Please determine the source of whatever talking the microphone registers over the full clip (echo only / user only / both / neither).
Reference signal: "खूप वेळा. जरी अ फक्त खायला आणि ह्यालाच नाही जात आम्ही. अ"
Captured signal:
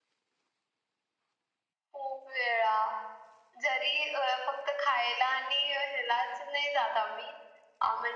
echo only